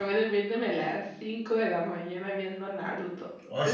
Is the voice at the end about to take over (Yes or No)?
No